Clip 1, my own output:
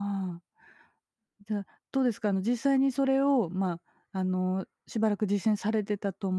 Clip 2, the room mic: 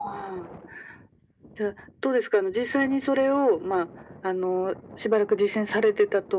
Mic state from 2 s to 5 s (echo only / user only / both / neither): echo only